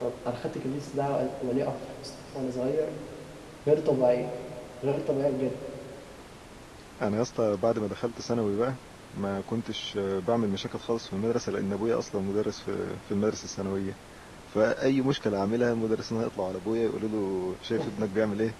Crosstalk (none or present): none